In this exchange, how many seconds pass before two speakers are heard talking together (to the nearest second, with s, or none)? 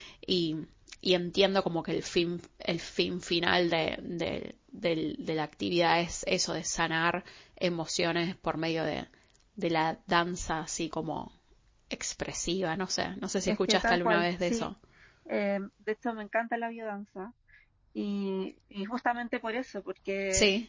13 s